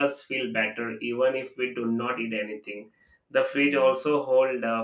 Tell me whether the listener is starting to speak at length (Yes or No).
No